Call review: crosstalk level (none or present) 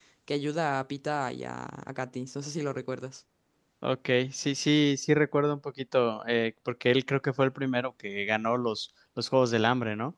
none